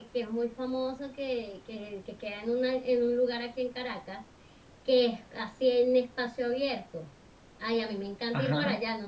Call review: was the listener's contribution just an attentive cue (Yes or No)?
Yes